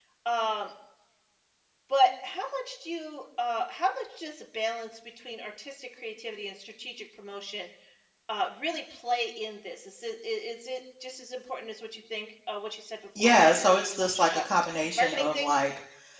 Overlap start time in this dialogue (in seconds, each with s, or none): 13.2 s